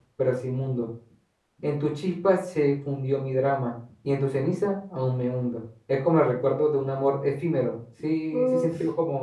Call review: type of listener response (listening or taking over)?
taking over